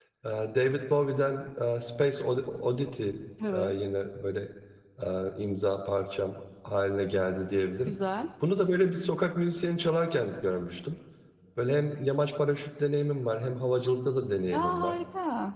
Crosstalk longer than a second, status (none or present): none